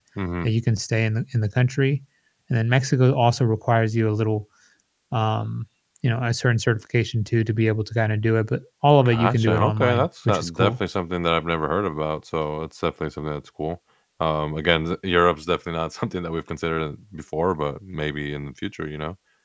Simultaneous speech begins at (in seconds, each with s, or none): 9.0 s